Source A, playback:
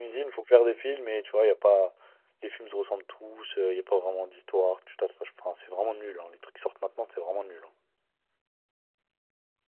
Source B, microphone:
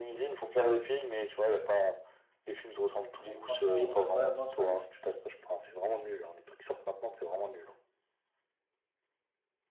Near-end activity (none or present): present